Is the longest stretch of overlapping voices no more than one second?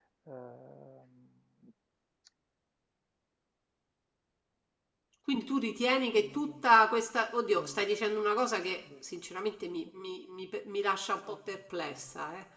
Yes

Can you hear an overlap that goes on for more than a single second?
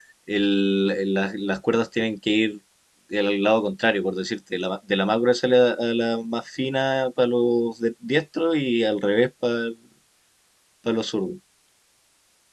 No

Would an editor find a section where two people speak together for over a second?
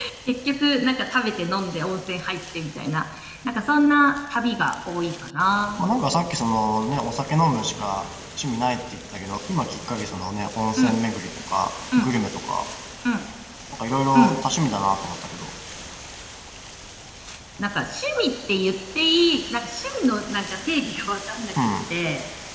No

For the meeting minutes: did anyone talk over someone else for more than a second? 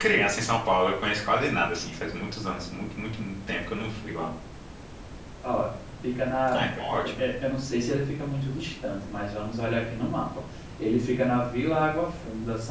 No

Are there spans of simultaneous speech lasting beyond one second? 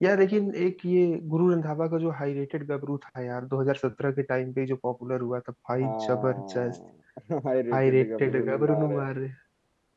Yes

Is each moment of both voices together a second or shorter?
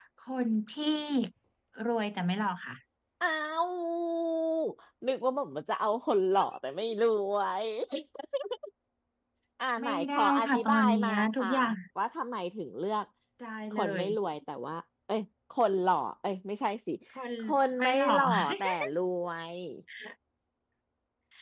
No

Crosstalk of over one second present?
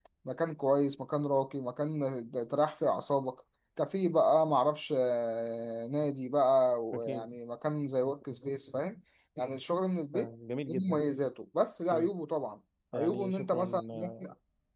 Yes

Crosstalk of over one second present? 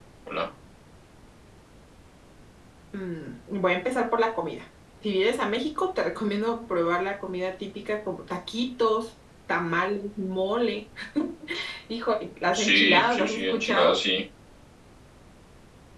Yes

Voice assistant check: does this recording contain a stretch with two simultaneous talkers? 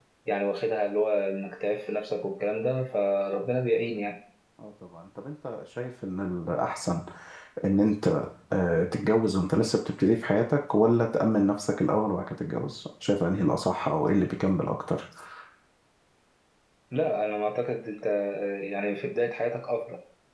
No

